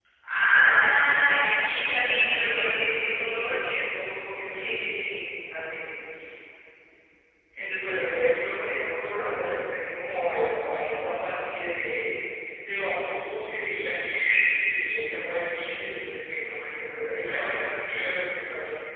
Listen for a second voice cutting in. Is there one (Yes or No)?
Yes